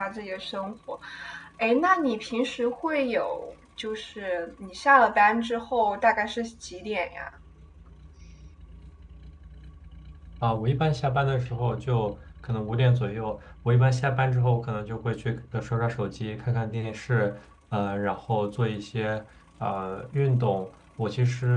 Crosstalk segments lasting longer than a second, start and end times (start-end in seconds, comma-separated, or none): none